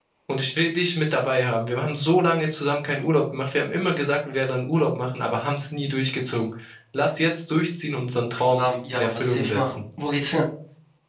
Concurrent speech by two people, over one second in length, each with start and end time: 8.5-9.8

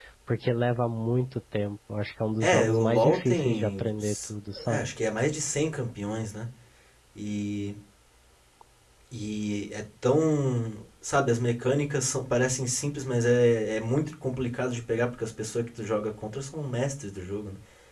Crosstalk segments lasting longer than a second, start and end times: 2.4-3.8

